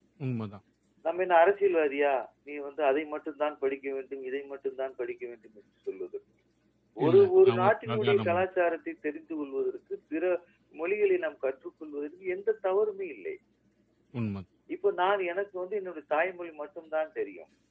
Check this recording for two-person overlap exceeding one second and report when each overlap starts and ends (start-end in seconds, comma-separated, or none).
7.1-8.4